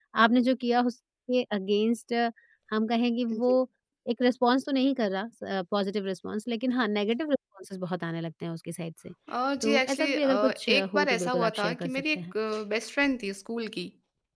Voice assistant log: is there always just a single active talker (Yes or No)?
No